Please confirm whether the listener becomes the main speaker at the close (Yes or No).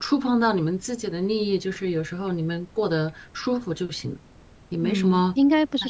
Yes